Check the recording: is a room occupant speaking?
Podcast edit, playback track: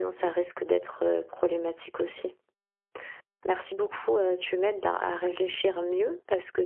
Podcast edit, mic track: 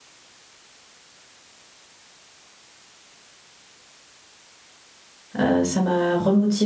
Yes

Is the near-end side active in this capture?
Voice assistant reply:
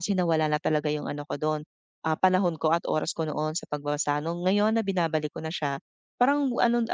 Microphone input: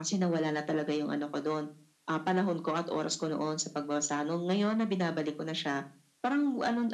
No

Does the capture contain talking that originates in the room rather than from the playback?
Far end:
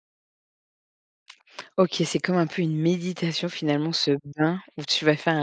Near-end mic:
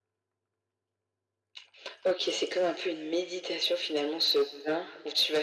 No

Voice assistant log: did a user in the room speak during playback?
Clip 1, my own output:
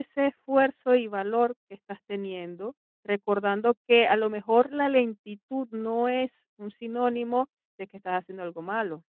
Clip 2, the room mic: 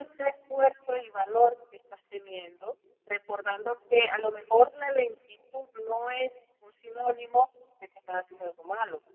No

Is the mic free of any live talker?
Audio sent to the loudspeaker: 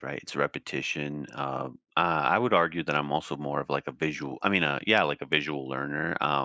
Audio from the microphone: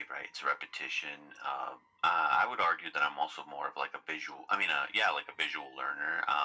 Yes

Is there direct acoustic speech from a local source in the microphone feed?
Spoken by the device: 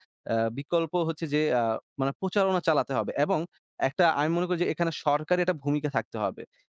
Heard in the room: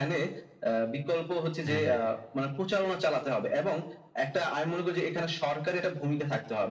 Yes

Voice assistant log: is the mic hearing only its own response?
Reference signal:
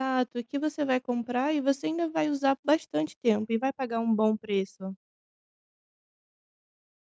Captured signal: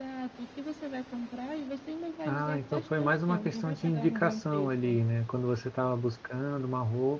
No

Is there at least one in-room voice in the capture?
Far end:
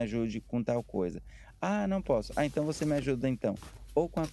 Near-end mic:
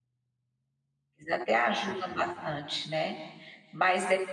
Yes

